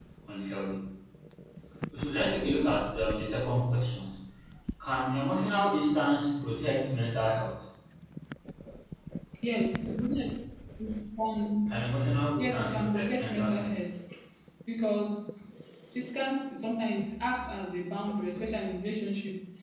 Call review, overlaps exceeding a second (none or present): present